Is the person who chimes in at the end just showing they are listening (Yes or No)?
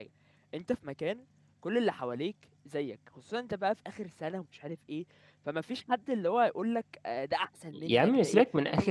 No